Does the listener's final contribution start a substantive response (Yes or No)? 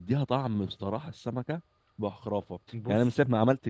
No